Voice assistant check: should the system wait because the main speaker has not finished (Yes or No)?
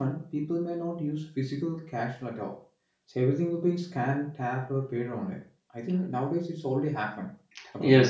No